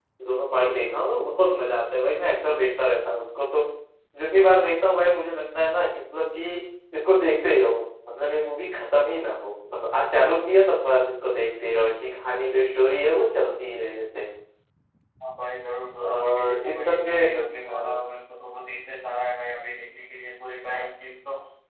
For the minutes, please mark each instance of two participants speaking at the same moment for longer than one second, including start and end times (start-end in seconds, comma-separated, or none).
16.0-18.0